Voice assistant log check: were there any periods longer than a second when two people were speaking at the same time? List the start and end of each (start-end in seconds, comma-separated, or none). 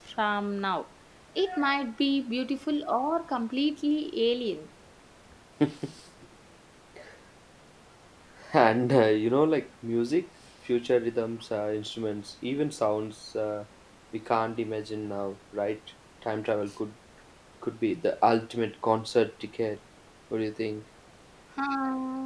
none